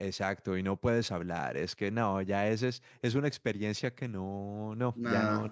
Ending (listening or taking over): taking over